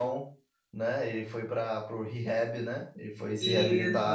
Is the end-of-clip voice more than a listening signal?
Yes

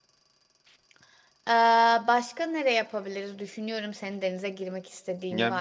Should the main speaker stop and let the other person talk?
Yes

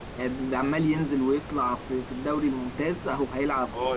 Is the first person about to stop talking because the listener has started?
Yes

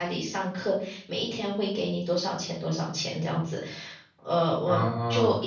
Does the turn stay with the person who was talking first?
Yes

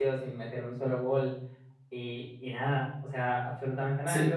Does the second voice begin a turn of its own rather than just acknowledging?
Yes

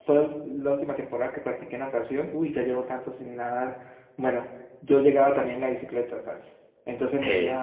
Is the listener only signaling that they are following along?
Yes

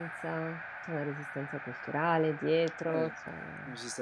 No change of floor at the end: No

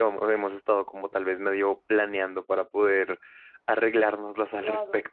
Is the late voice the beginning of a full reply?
Yes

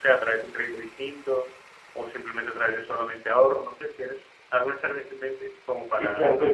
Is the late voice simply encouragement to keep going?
No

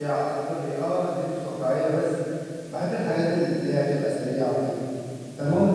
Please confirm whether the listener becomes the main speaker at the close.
No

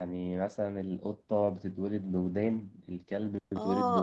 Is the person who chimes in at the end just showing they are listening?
No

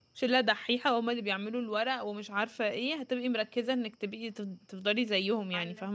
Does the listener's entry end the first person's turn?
Yes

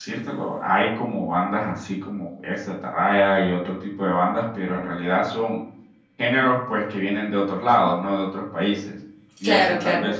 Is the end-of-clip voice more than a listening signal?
No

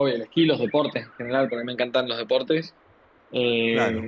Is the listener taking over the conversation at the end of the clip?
No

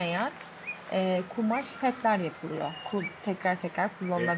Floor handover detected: Yes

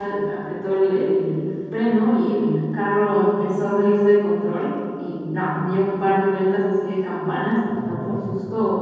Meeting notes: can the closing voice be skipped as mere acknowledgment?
Yes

